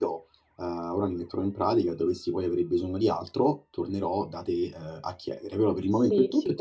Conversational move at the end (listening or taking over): taking over